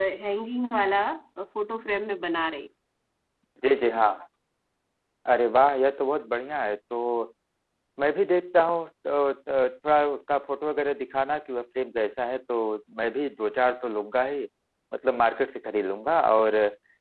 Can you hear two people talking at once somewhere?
No

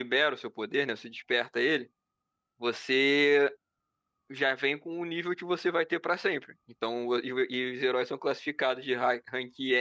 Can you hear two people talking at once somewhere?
No

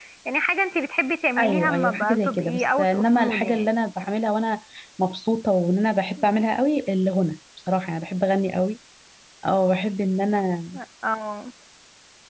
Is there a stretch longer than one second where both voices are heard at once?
Yes, from 1.4 s

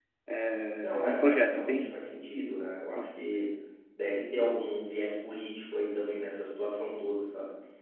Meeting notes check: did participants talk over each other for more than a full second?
Yes, from 0.8 s

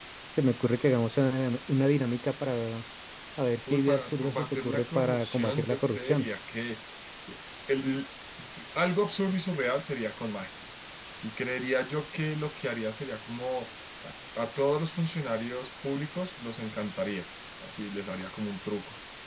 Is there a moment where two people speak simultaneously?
Yes, from 3.7 s

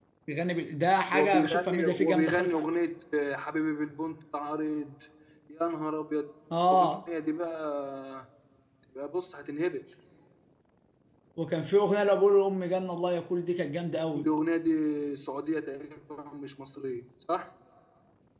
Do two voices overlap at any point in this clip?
Yes, from 1.1 s

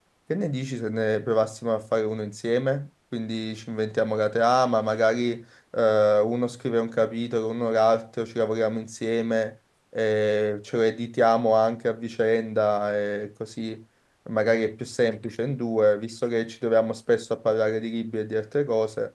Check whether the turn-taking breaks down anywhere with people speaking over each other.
No

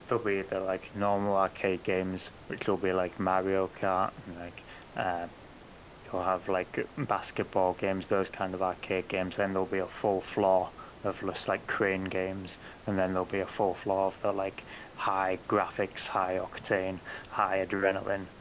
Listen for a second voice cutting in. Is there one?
No

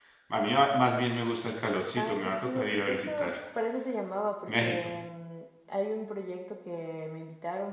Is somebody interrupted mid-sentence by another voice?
Yes, from 2.0 s

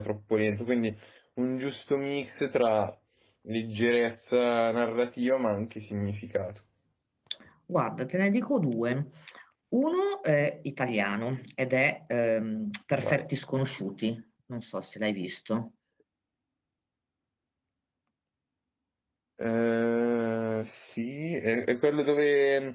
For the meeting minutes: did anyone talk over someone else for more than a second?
No

